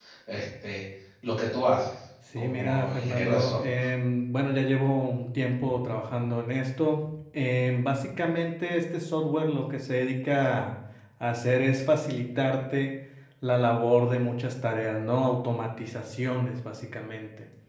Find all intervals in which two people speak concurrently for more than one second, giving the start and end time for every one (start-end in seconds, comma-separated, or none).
2.4-3.8